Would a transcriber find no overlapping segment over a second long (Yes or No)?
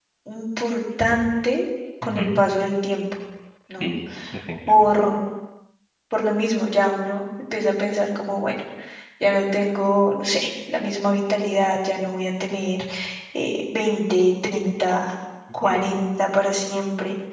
Yes